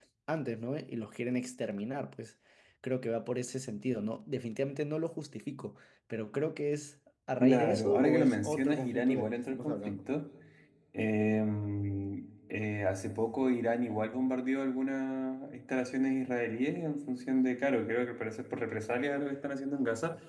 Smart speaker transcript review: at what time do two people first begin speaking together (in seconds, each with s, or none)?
7.4 s